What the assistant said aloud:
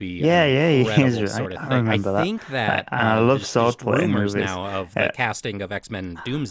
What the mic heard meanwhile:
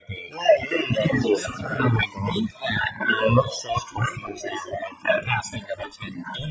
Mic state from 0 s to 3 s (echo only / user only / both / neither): both